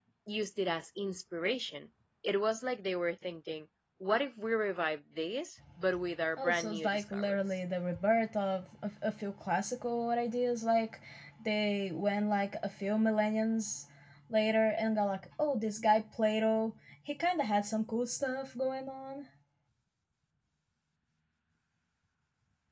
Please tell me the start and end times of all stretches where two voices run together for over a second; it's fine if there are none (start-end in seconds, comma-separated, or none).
6.4-7.6